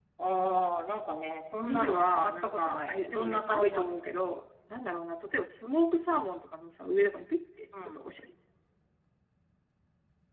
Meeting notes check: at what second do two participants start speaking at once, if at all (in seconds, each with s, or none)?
1.6 s